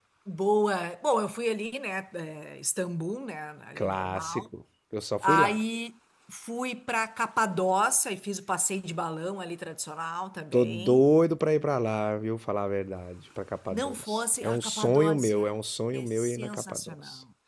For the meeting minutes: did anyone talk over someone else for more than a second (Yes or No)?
Yes